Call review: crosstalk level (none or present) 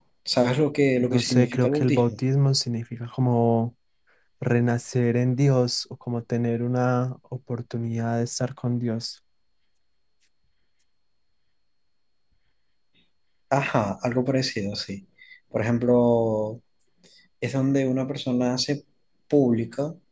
present